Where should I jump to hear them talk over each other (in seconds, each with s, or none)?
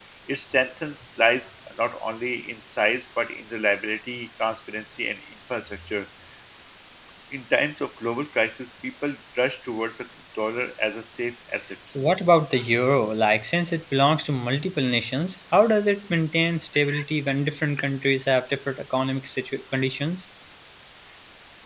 none